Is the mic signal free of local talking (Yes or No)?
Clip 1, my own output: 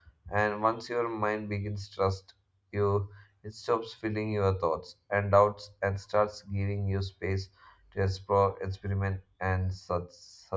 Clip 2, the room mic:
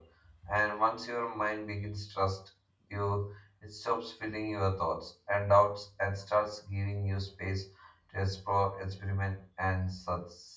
Yes